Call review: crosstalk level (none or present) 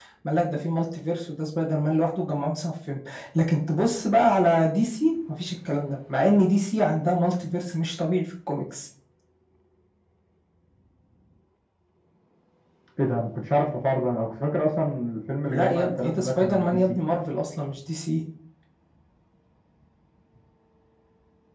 present